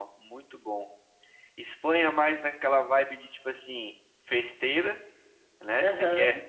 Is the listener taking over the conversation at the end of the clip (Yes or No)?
No